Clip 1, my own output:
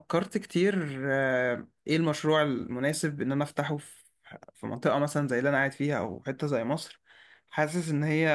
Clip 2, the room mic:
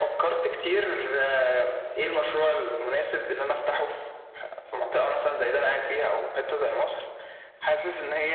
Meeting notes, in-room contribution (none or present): none